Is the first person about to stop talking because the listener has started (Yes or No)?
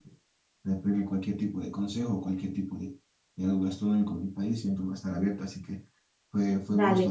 No